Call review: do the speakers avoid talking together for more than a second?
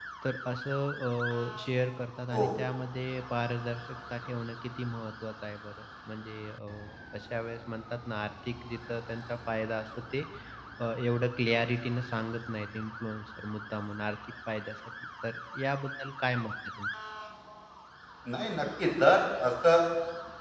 Yes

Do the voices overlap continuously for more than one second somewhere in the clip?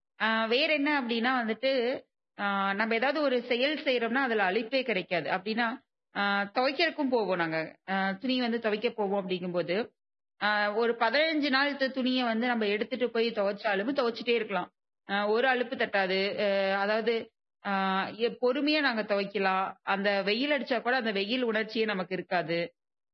No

